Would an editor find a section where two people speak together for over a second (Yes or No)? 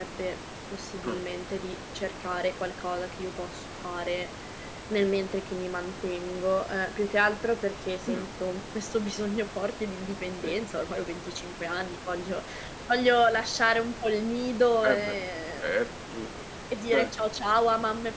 No